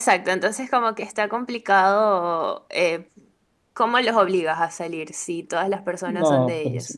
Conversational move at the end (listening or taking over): taking over